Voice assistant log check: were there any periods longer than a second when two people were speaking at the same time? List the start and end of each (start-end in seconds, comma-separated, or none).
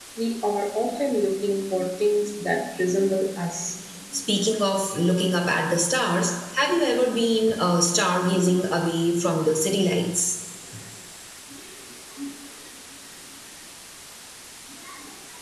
none